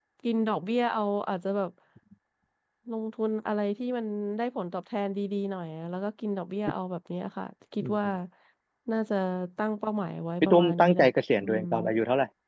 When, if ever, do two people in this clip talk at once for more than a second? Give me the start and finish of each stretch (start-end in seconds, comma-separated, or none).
10.4-11.6